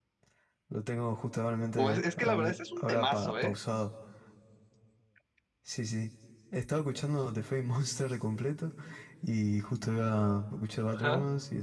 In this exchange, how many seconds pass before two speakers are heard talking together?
1.8 s

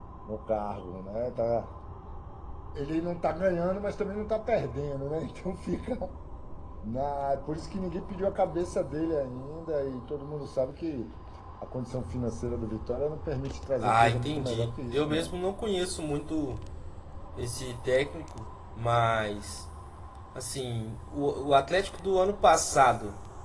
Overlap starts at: 13.8 s

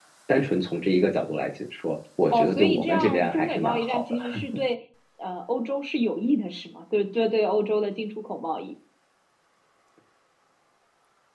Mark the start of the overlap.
2.3 s

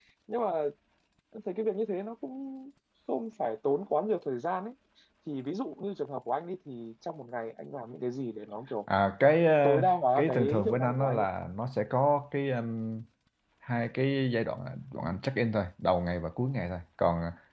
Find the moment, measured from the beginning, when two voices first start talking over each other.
9.6 s

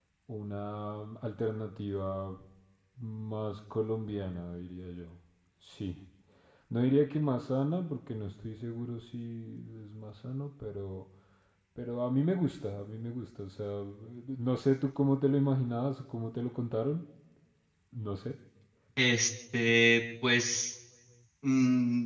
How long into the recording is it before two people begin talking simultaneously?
none

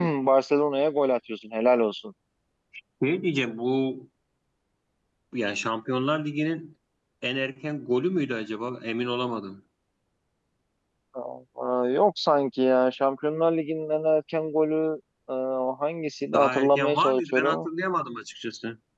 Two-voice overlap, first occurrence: 16.3 s

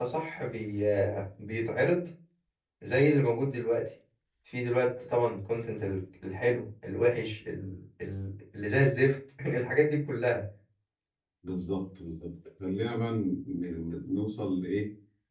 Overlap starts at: none

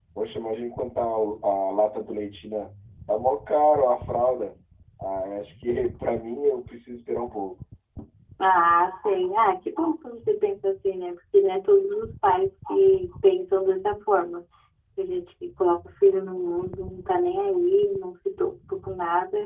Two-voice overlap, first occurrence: none

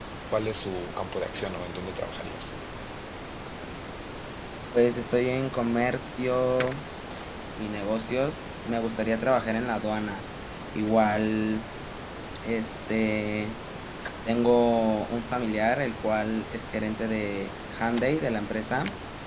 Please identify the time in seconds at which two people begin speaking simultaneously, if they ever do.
none

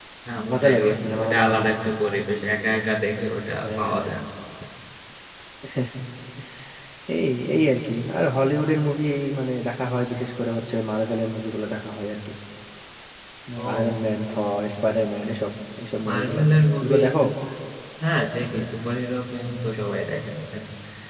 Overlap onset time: 0.5 s

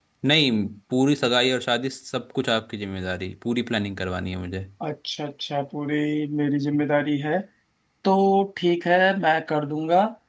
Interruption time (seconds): none

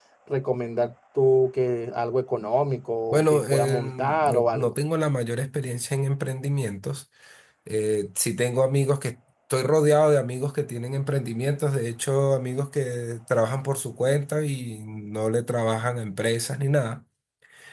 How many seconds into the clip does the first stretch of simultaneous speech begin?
3.1 s

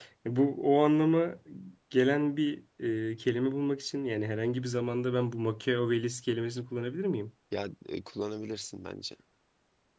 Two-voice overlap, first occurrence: none

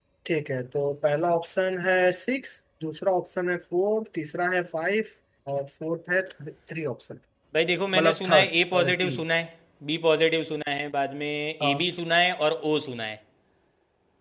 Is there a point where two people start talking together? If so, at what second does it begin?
7.9 s

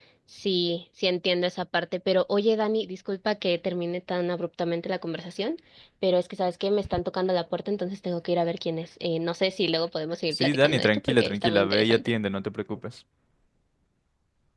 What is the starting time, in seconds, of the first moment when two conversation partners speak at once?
10.3 s

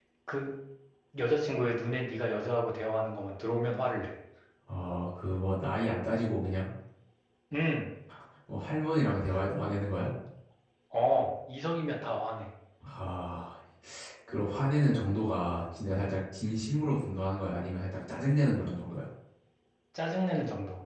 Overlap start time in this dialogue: none

